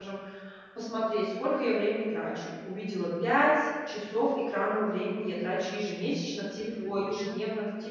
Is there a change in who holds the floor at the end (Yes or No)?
No